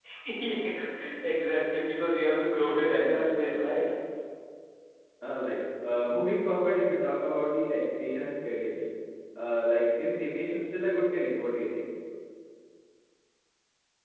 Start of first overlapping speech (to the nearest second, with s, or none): 3 s